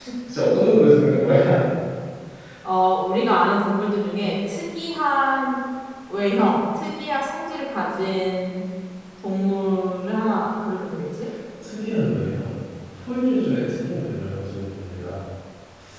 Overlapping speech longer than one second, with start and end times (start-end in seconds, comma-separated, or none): none